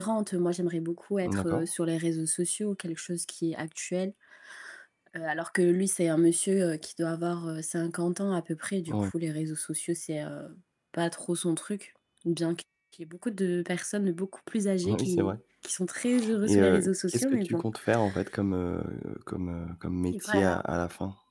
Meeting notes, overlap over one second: present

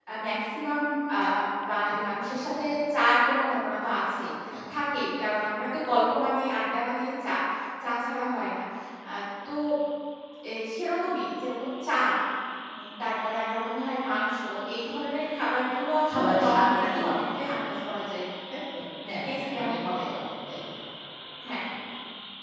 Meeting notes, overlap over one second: present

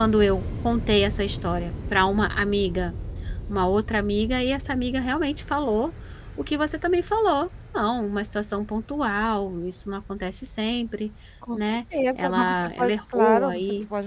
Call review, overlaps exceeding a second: present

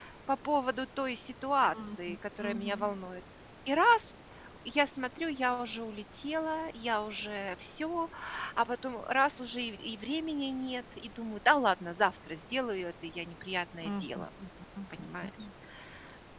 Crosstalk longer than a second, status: present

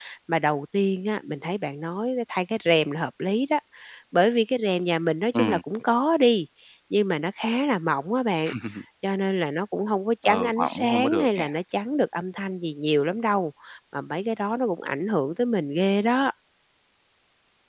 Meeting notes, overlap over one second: present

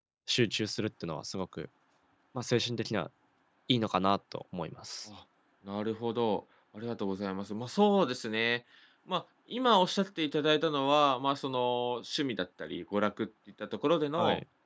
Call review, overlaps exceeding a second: none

